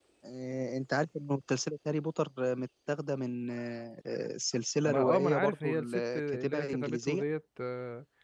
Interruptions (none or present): present